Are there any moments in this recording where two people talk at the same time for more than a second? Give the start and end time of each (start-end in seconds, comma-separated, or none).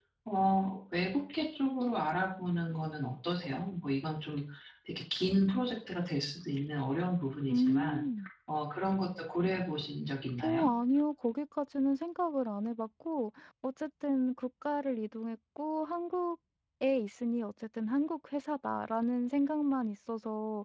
none